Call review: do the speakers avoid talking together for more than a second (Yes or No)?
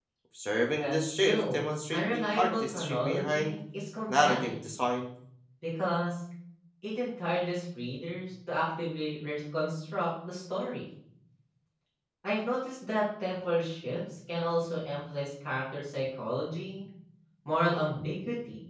No